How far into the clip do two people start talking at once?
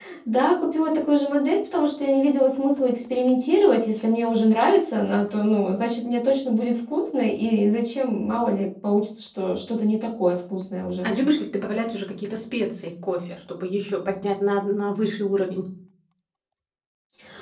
none

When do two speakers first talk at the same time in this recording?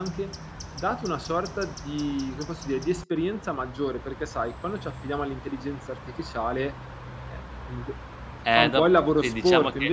8 s

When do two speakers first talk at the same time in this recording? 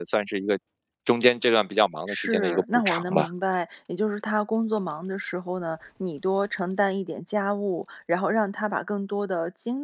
2 s

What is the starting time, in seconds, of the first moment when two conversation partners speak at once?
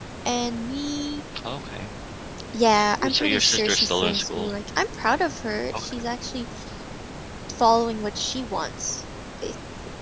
3 s

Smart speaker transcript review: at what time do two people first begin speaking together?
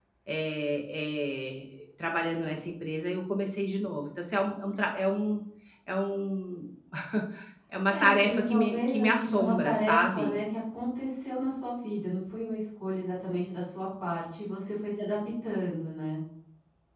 8 s

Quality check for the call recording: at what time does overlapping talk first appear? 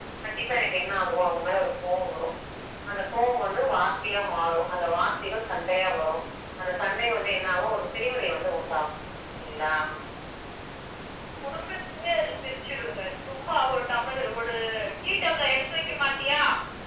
none

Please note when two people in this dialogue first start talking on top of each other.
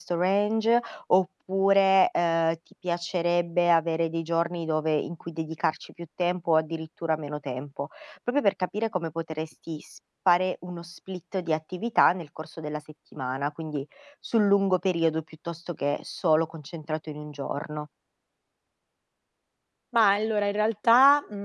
none

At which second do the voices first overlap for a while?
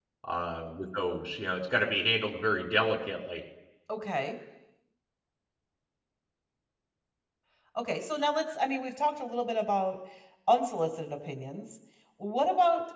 none

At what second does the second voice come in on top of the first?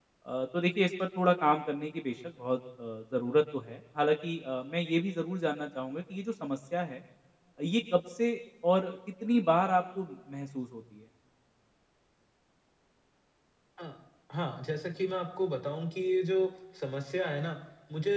none

